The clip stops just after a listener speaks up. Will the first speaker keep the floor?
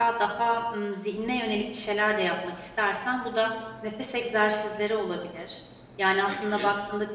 Yes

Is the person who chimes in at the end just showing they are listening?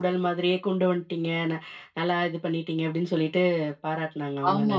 No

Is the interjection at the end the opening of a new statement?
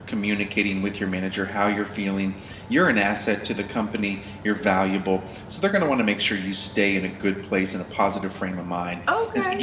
No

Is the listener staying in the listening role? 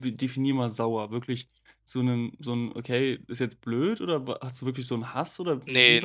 No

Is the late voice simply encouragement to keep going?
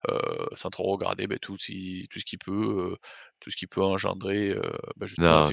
No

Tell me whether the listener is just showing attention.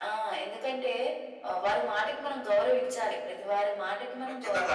No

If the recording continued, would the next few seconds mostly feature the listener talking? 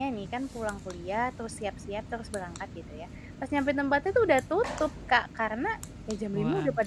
No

